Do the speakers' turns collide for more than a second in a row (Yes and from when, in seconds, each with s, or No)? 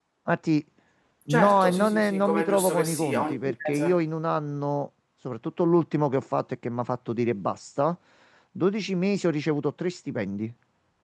Yes, from 1.3 s